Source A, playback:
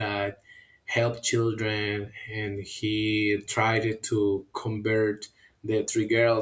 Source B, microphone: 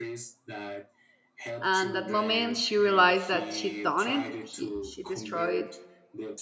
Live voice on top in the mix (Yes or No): Yes